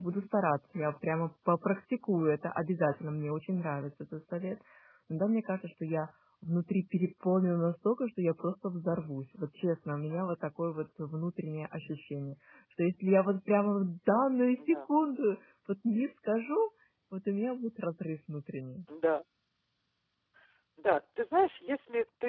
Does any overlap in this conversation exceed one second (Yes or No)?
No